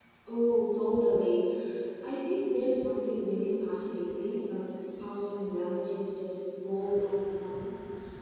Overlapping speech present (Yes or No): No